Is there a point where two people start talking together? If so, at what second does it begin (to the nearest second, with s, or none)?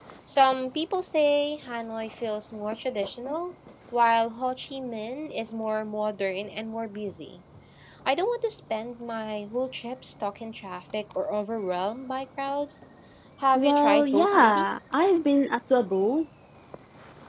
14 s